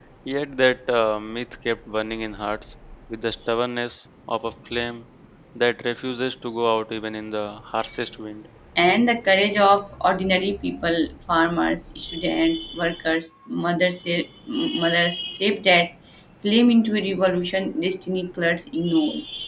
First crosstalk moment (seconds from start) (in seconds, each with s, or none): none